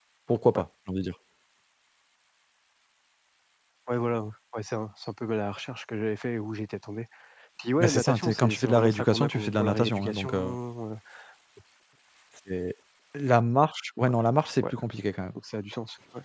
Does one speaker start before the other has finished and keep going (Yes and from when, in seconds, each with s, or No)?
Yes, from 7.8 s